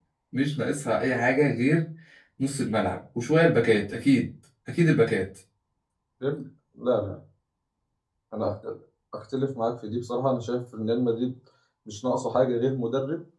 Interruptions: none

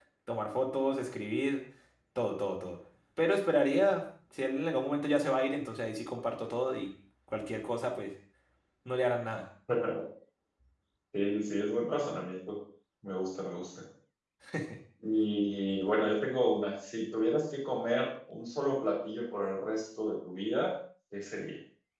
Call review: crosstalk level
none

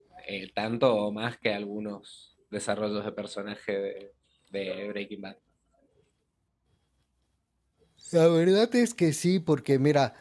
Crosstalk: none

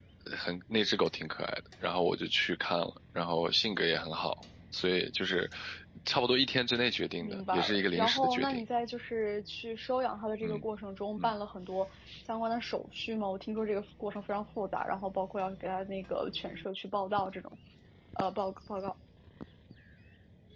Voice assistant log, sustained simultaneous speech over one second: present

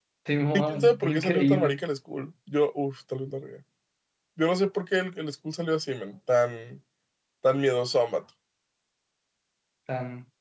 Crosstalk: present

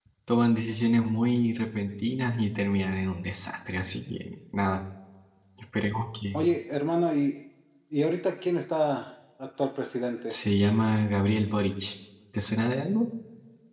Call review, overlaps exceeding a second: none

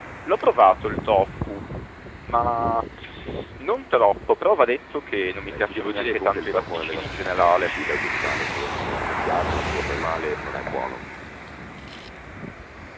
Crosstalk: present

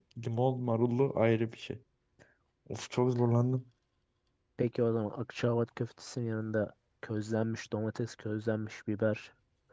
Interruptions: none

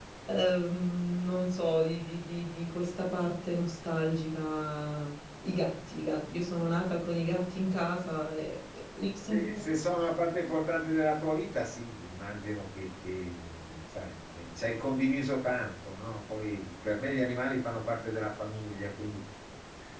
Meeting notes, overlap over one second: none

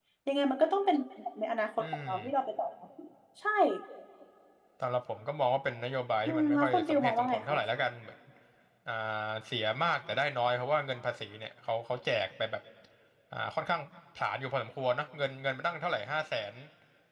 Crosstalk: present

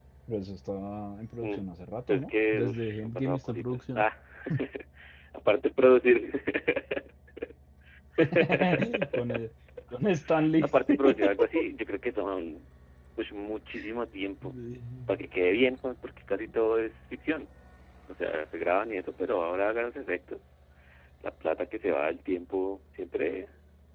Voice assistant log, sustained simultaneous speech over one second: present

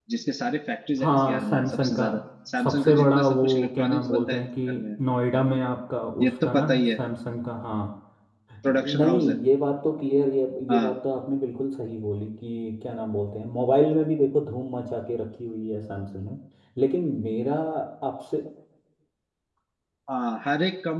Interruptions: present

